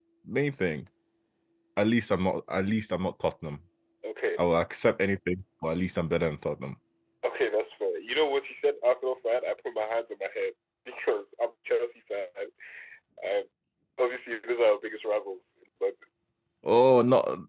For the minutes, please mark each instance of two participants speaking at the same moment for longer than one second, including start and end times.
none

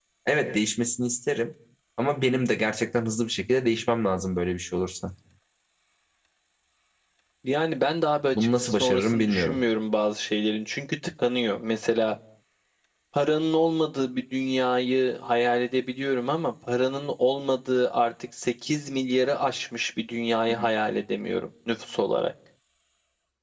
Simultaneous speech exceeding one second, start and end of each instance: 8.3-9.6

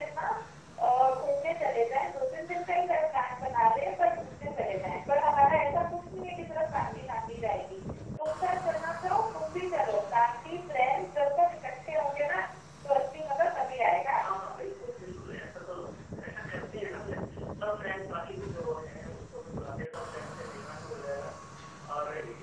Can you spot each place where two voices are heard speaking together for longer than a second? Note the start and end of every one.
none

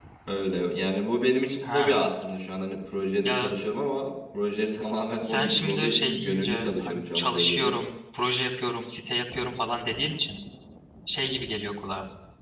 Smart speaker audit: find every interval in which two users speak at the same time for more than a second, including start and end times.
5.2-7.7

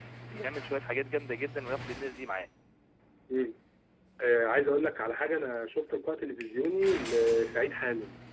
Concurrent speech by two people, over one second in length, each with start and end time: none

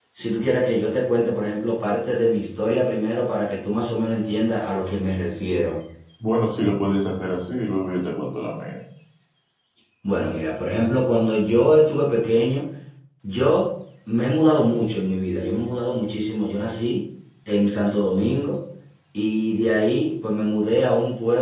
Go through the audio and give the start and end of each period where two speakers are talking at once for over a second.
none

